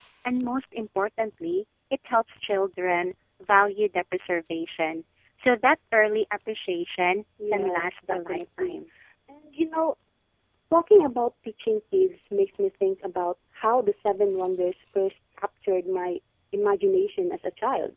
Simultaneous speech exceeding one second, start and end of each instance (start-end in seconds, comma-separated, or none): 7.5-8.8